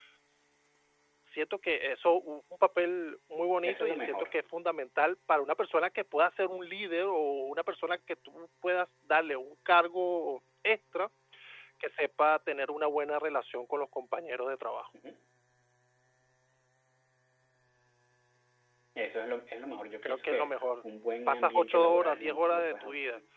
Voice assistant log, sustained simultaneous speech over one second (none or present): present